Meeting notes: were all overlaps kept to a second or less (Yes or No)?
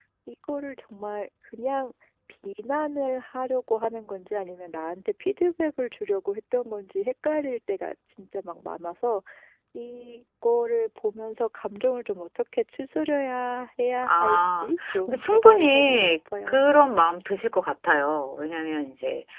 No